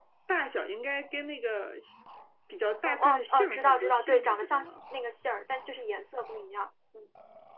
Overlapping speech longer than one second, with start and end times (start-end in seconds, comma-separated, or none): 2.9-4.7